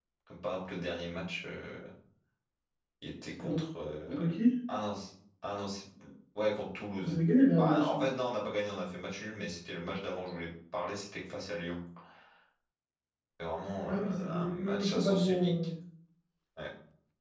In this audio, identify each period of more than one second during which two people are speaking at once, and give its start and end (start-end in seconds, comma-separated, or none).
13.9-15.5